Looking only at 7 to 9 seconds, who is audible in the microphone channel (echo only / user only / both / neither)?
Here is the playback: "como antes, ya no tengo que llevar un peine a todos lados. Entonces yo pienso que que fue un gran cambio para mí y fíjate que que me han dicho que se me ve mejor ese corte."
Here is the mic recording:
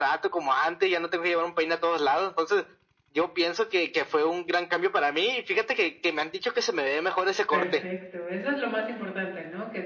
both